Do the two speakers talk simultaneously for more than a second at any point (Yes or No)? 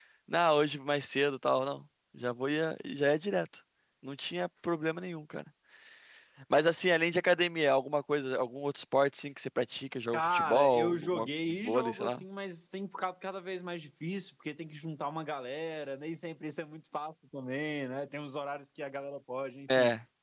Yes